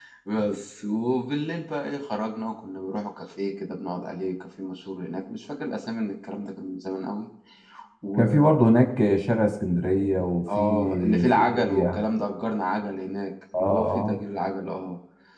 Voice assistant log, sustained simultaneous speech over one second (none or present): present